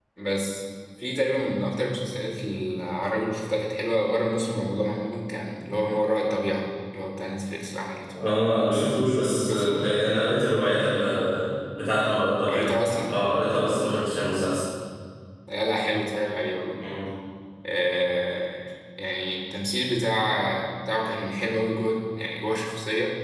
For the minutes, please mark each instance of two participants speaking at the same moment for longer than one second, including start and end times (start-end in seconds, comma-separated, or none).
none